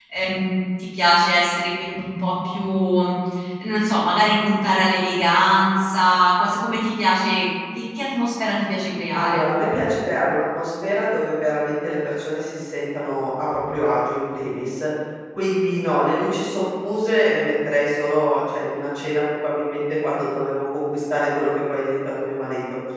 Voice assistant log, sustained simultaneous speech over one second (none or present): none